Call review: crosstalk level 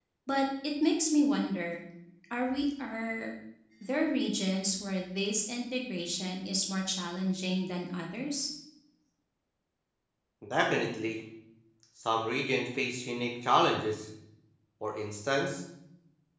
none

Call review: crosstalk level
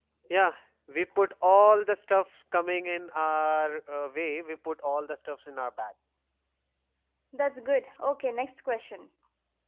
none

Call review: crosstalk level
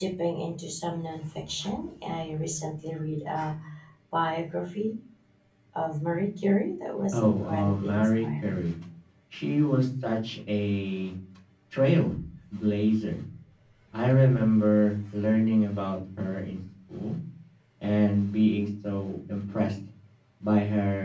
present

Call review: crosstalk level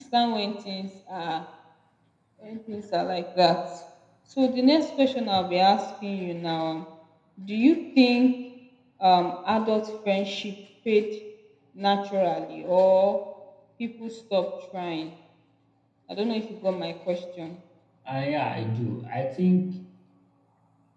none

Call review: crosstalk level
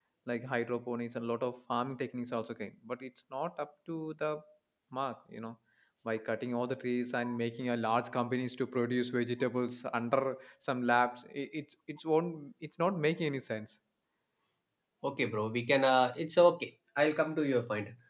none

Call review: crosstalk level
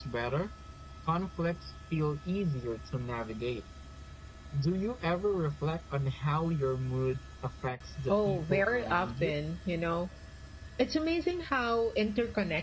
present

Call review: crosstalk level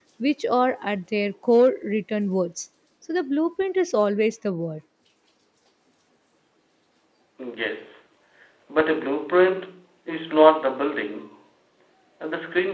none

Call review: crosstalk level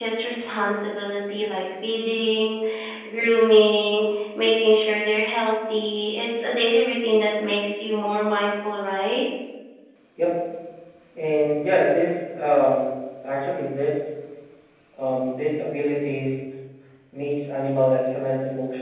none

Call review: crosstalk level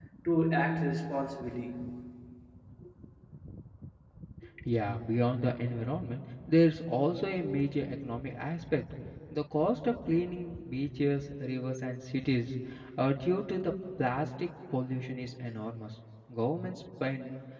none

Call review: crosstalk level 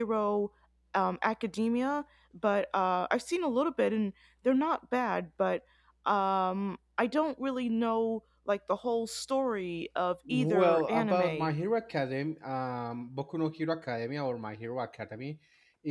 present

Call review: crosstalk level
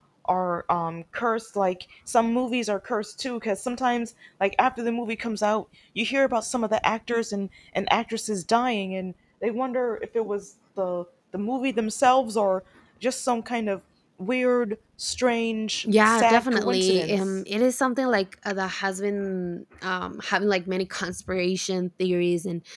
present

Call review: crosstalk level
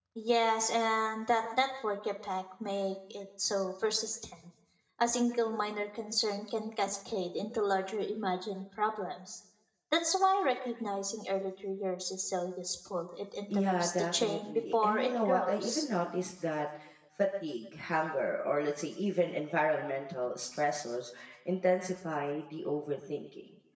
present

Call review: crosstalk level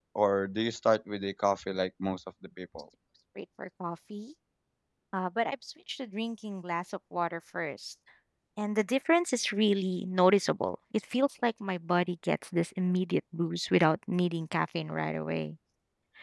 none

